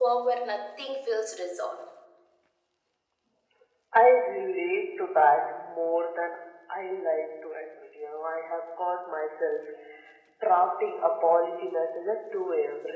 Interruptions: none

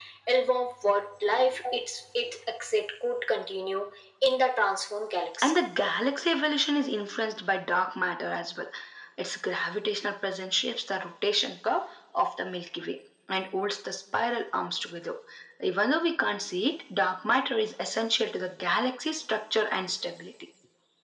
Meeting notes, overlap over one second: none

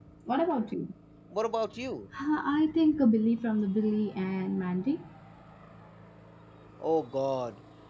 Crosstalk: none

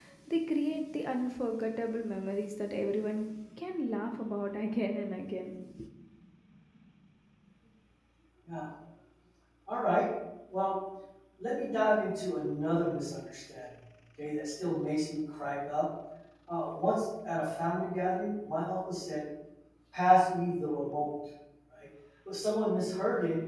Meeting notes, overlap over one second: none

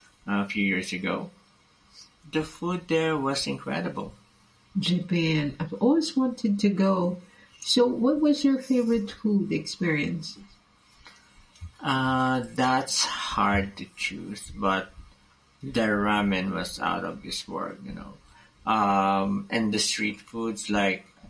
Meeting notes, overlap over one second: none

